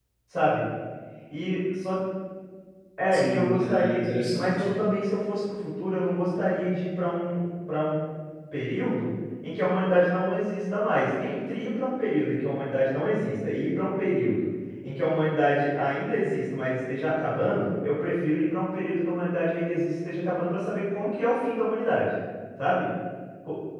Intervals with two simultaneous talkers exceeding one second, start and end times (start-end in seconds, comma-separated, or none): 3.1-4.7